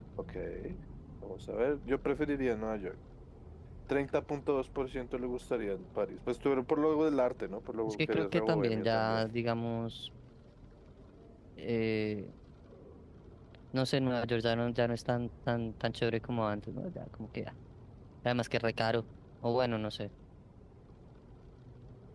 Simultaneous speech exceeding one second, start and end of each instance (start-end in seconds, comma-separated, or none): 7.9-9.2